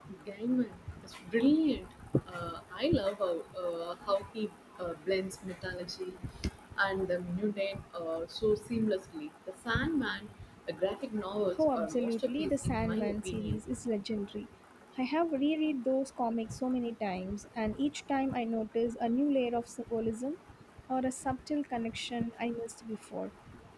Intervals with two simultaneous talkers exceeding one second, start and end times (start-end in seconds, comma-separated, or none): 11.6-13.6